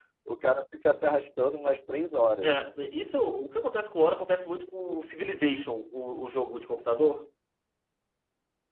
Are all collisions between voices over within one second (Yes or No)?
Yes